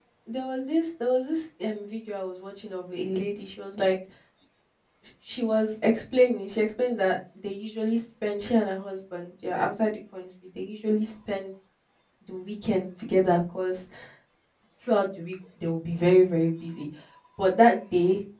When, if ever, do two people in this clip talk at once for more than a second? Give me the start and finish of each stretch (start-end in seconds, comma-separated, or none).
none